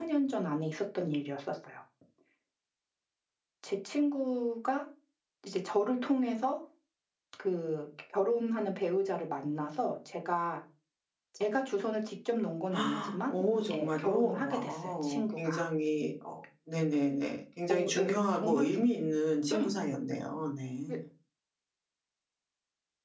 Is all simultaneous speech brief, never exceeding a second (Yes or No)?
No